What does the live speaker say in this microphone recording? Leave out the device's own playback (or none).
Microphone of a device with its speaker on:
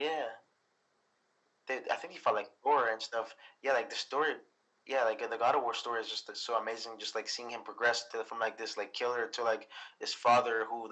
none